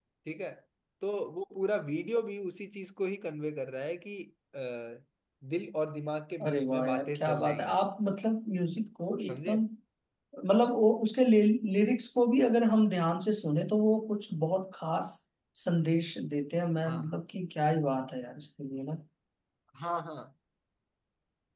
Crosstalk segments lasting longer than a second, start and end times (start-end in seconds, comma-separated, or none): 6.5-7.9